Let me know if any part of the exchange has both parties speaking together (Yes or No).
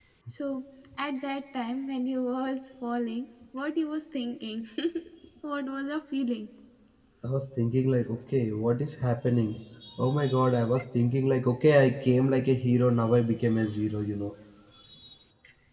No